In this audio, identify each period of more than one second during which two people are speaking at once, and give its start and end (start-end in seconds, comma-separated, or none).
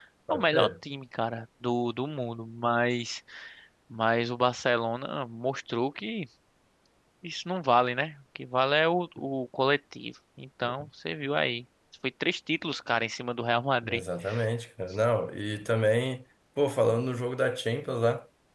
none